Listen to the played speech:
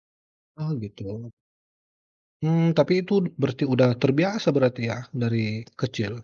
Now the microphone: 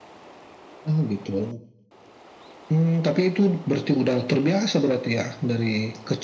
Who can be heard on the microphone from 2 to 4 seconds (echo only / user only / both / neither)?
echo only